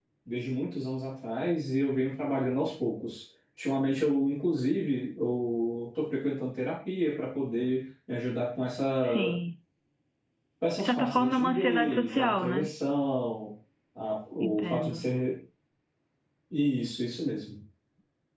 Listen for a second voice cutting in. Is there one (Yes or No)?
Yes